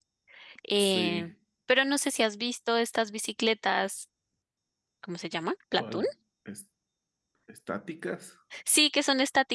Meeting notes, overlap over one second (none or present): none